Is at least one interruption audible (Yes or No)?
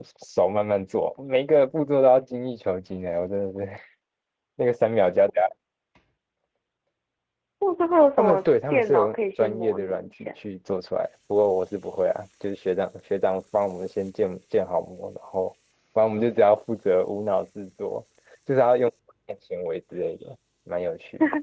Yes